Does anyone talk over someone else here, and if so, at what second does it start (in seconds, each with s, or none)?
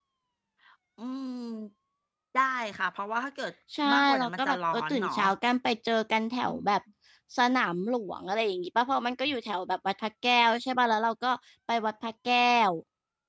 3.9 s